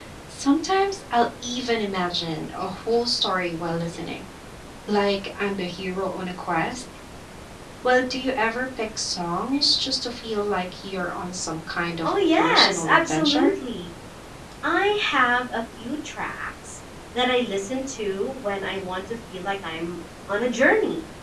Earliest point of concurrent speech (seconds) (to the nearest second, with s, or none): 12 s